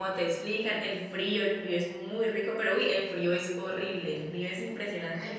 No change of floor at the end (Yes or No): No